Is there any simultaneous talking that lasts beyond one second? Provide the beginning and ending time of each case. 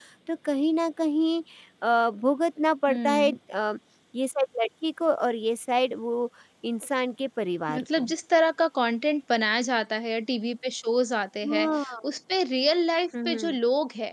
none

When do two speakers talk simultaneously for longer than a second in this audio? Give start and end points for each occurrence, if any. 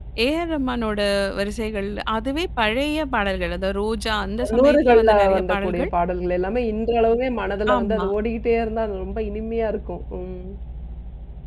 4.4-5.9

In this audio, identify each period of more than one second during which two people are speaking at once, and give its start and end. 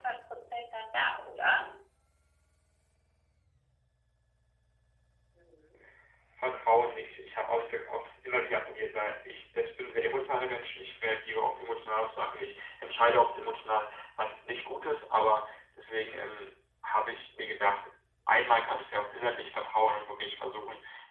none

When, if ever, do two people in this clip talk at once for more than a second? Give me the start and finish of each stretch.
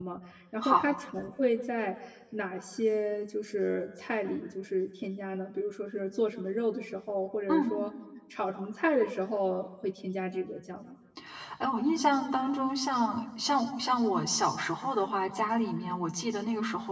none

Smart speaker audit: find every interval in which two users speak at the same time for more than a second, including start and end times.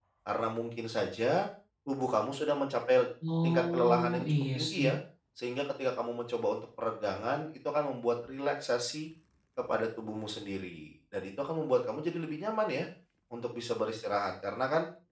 3.4-4.9

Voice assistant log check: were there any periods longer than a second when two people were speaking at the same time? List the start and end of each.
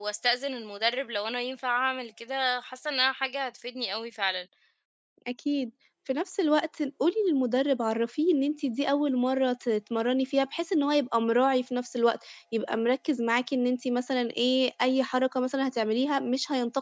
none

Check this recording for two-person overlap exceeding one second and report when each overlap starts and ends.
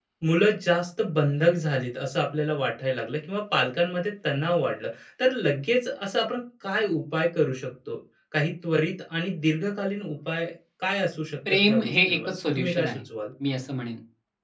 11.5-13.0

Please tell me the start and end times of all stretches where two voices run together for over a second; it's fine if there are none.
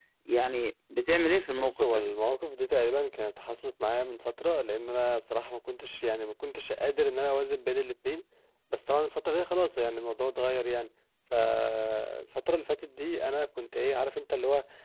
none

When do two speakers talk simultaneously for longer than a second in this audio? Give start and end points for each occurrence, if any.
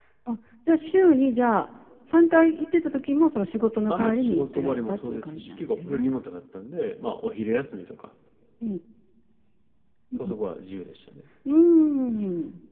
3.9-6.2

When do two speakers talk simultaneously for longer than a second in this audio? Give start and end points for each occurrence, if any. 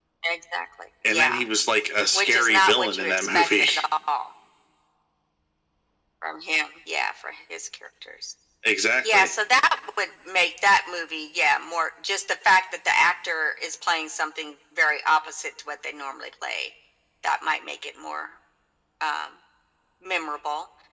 2.1-3.7

